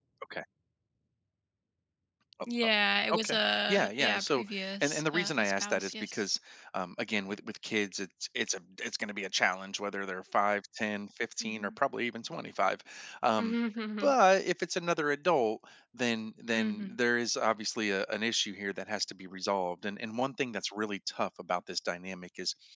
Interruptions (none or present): present